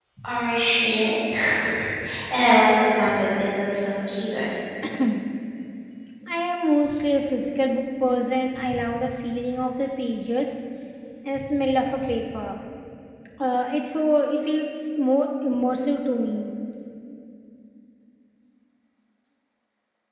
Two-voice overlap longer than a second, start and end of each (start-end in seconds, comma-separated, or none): none